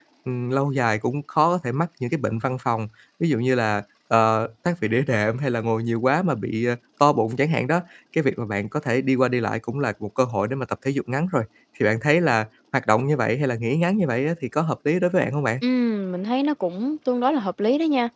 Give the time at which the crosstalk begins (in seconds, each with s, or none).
none